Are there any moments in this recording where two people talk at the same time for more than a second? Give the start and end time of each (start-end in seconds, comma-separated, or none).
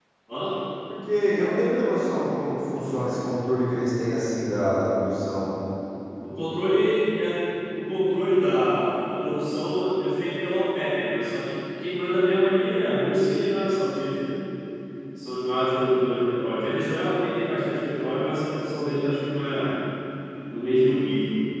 none